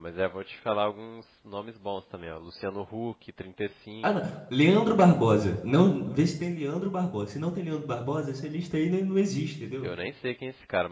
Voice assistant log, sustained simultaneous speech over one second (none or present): none